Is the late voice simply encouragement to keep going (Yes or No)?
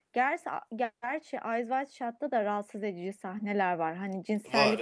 Yes